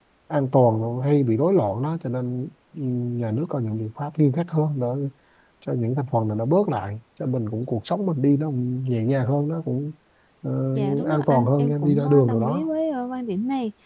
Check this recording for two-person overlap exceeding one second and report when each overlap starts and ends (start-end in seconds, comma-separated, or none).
10.7-12.7